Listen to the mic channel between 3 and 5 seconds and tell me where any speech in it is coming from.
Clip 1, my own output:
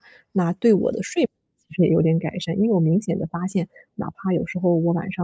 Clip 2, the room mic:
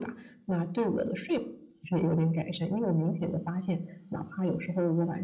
echo only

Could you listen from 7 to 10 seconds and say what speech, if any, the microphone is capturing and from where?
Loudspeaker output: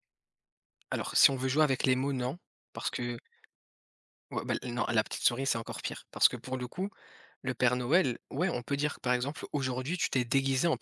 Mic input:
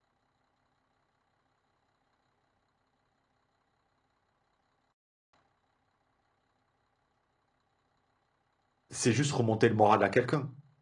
user only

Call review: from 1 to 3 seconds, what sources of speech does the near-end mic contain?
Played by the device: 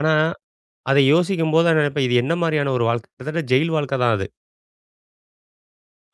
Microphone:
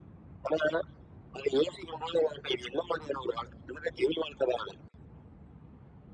echo only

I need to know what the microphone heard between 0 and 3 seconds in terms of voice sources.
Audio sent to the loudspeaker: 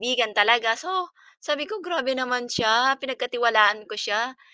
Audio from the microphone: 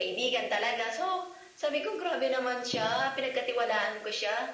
echo only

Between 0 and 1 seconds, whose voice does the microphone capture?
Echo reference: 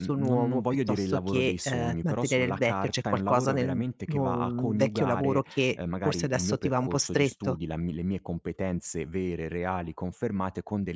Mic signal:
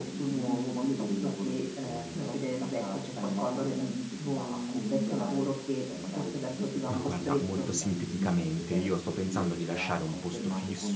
echo only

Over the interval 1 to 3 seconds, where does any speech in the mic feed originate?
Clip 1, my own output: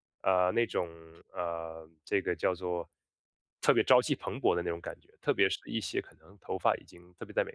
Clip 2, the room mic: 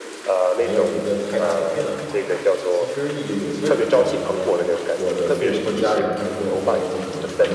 both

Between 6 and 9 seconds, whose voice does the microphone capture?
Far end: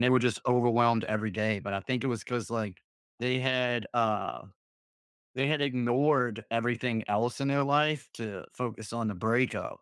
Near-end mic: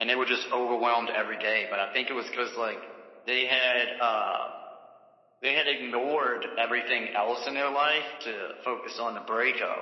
echo only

